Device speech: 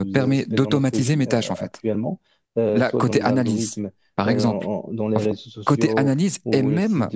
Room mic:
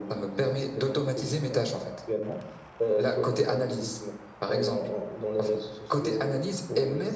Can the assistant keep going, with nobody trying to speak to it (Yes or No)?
Yes